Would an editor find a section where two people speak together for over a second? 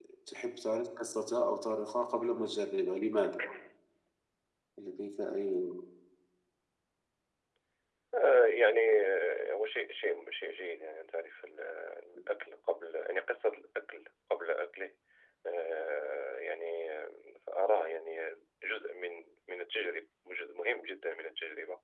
No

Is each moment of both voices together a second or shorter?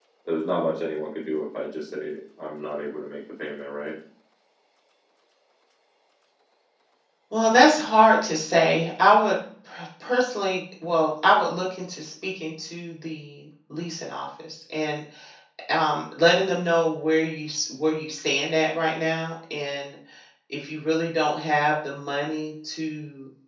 Yes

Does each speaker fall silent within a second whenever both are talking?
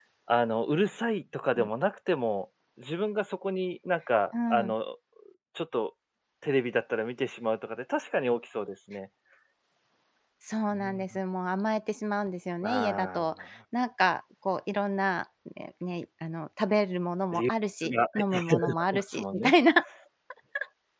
No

